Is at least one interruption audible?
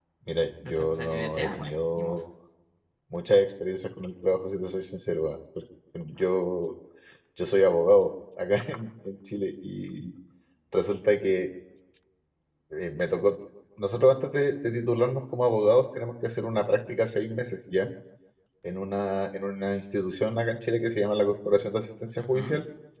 Yes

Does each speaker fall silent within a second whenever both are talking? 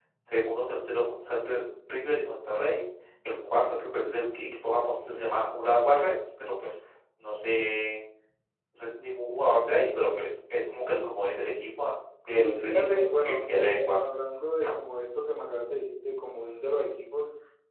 No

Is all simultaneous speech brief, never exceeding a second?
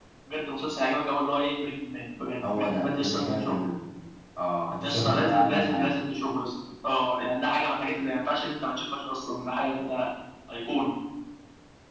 No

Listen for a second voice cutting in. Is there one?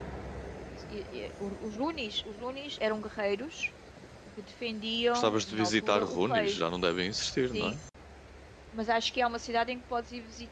Yes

